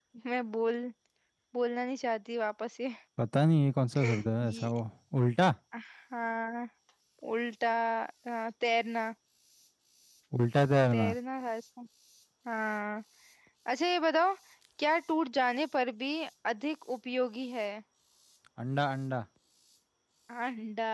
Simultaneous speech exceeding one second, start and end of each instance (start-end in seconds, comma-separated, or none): none